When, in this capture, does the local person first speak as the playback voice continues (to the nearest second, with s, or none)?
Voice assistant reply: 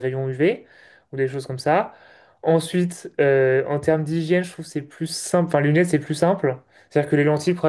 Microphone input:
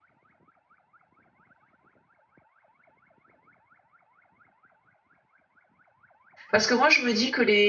7 s